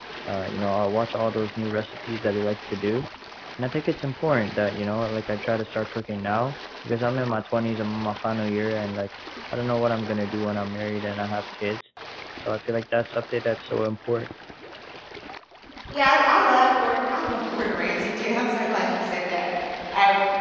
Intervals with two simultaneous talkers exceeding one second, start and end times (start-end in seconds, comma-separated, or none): none